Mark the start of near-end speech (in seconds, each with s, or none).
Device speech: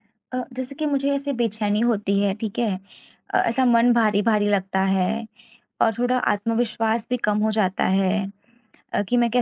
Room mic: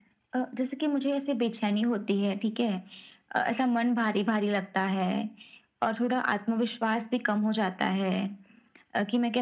none